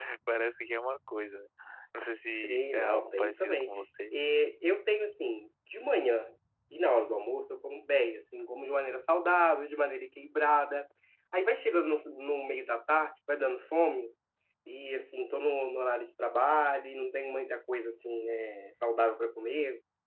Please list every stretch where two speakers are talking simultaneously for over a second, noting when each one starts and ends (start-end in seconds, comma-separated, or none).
2.4-3.7